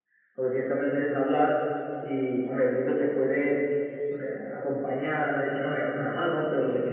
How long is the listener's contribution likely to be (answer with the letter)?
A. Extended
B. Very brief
B